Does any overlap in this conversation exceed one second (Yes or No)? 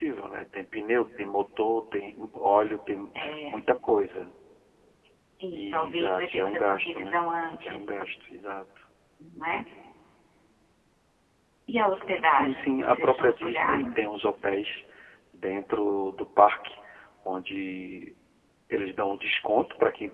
Yes